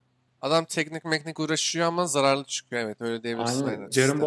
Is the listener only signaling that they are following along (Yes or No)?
No